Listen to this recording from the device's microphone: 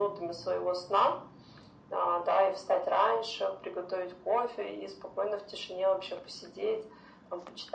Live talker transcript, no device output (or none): none